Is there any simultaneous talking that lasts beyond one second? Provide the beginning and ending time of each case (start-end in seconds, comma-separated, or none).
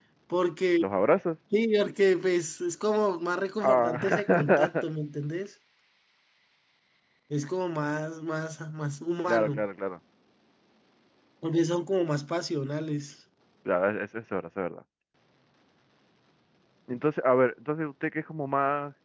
3.6-4.8